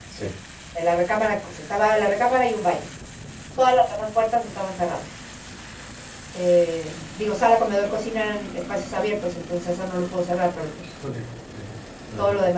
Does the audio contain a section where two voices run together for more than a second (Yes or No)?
No